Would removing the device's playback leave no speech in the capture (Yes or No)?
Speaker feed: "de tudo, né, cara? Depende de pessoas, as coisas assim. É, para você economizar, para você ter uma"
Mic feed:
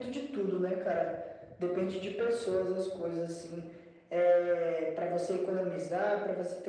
Yes